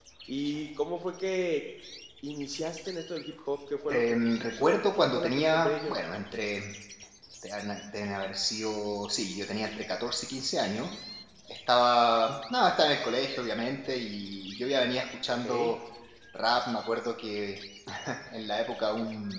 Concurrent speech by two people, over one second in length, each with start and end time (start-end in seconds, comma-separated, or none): 3.9-5.9